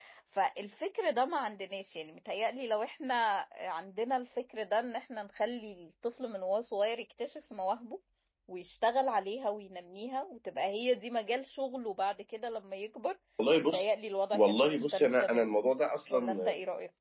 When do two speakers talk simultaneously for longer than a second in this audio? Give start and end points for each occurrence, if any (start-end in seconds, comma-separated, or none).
14.3-15.6